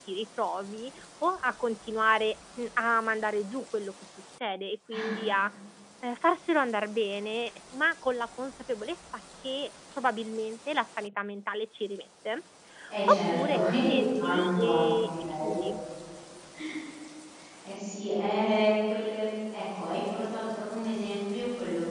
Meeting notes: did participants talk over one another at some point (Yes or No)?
Yes